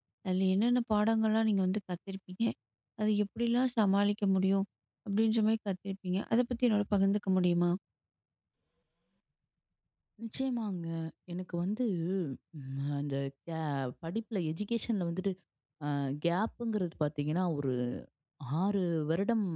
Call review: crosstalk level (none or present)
none